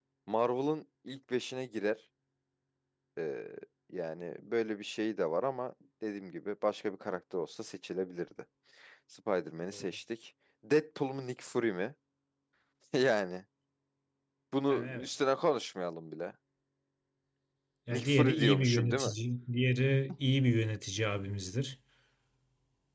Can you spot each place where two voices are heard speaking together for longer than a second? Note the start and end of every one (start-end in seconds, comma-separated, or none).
17.9-19.1